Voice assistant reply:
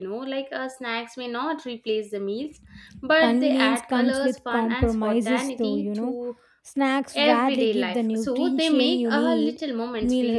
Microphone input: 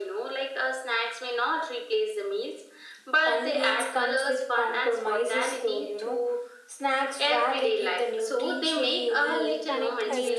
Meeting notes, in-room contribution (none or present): present